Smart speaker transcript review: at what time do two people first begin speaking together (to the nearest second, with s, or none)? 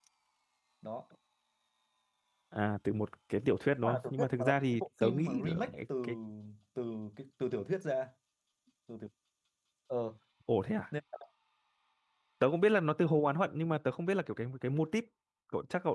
4 s